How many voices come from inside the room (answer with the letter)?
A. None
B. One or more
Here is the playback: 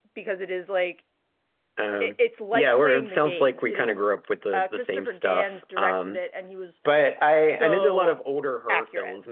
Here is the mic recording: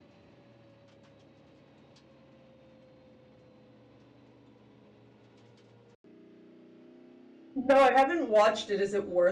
B